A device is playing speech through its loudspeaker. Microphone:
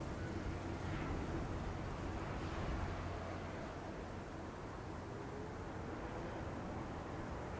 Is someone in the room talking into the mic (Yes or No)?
No